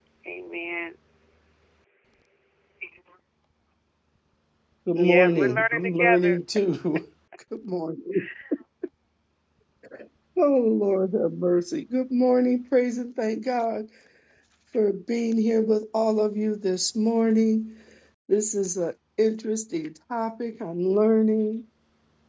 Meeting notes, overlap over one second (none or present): present